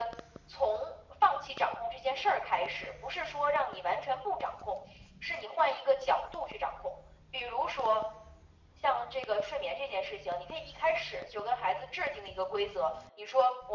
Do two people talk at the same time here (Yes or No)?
No